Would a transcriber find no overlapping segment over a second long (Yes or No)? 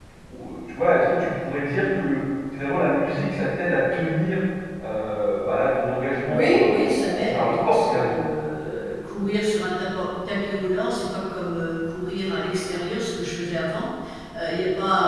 No